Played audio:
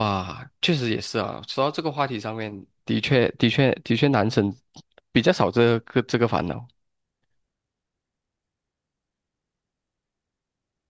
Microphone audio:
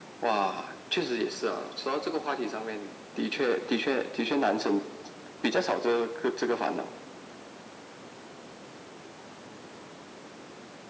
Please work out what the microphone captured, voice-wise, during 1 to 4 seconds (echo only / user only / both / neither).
echo only